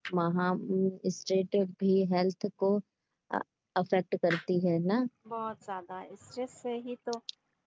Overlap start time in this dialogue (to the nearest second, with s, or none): none